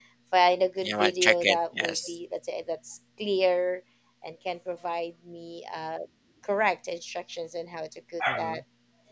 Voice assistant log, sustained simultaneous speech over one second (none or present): present